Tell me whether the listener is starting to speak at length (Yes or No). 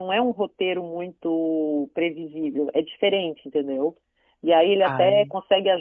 No